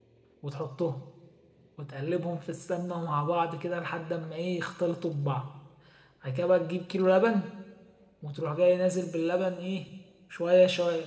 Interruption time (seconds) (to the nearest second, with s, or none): none